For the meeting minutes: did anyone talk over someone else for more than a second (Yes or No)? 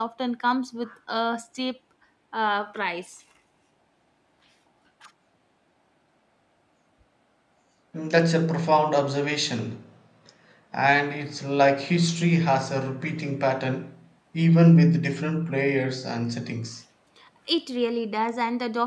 No